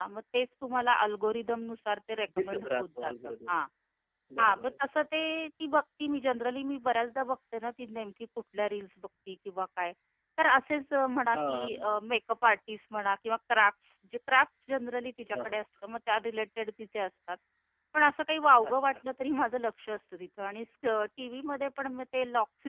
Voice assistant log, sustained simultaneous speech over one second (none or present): present